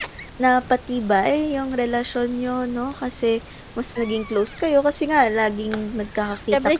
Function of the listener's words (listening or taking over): taking over